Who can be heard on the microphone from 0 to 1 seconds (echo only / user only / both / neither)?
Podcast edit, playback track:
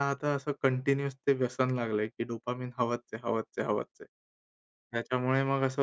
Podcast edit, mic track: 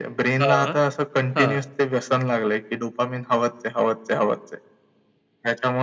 both